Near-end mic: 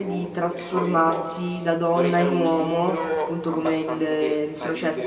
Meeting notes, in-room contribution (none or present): present